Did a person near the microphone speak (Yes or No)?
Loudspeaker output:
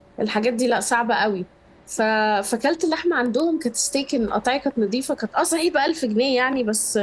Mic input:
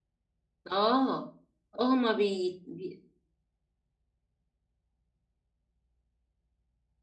Yes